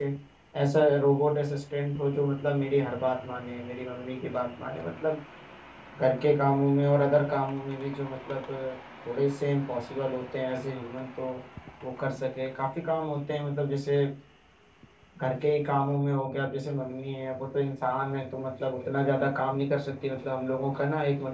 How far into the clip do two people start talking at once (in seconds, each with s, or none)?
none